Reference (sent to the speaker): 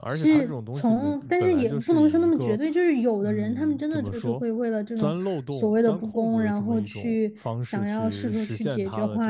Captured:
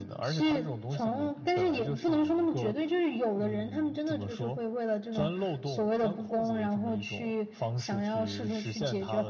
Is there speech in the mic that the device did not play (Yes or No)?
No